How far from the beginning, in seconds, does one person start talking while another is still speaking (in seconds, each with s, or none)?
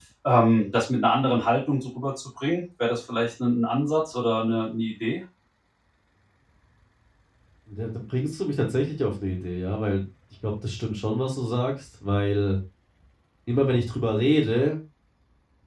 none